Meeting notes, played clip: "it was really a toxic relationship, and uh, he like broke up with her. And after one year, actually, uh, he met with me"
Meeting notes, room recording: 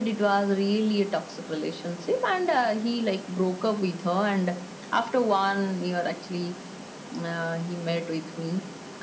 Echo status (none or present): present